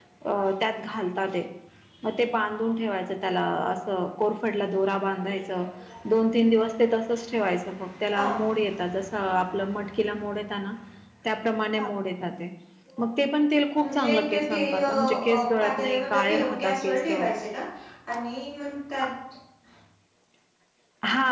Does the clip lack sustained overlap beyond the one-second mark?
No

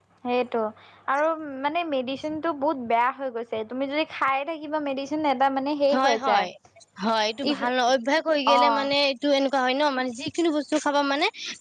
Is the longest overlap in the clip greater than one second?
No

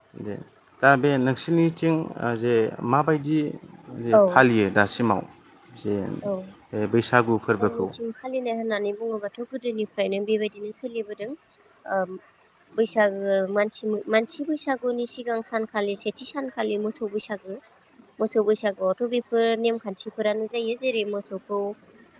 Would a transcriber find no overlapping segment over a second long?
Yes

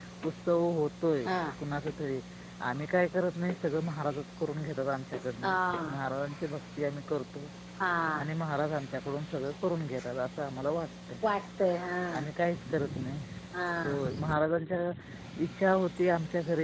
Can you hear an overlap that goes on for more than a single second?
No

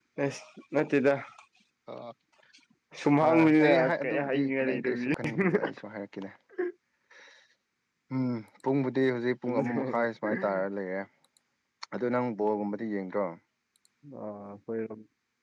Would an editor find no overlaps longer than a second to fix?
No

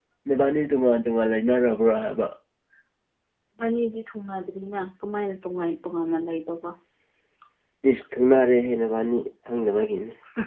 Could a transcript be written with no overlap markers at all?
Yes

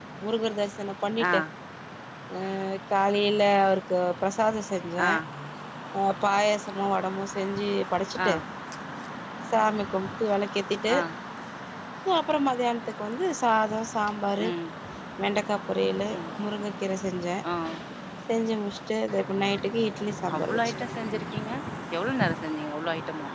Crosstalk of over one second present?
No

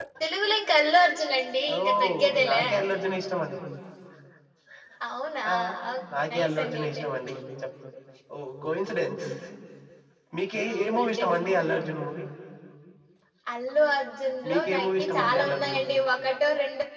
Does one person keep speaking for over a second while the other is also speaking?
Yes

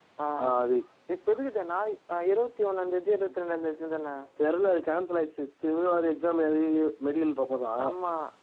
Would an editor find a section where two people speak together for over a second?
No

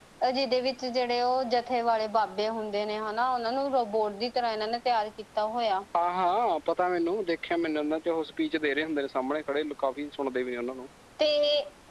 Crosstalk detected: No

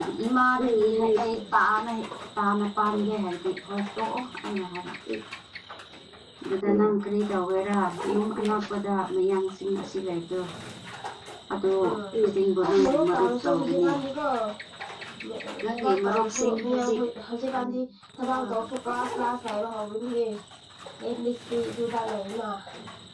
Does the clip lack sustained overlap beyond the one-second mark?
No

